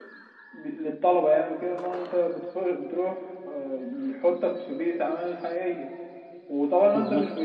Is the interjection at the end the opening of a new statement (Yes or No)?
No